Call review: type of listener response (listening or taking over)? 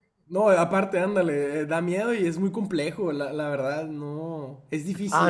taking over